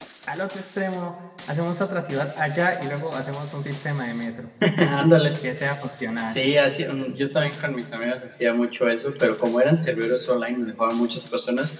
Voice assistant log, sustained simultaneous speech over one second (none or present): none